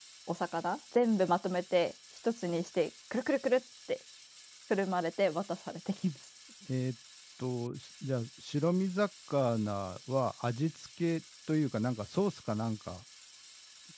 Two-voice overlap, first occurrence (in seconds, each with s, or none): none